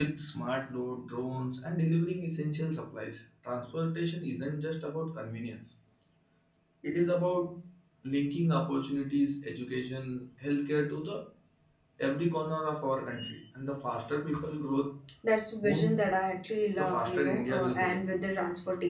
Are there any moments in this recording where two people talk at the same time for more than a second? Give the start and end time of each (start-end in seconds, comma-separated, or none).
16.8-18.0